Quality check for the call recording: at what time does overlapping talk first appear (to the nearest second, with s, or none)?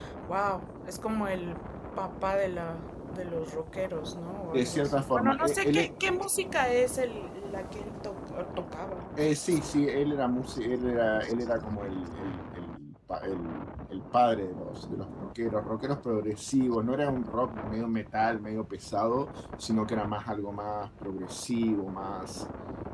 5 s